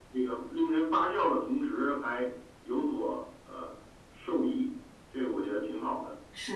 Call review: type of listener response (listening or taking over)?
taking over